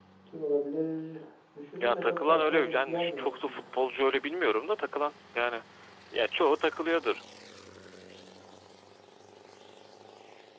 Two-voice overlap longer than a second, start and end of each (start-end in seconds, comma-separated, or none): 1.8-3.6